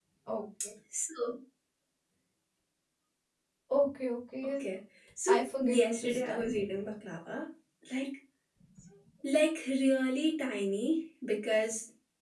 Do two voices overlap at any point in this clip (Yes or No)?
Yes